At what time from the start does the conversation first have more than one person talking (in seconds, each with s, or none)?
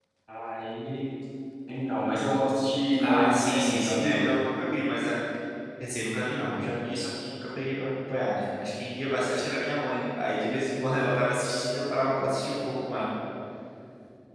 2.9 s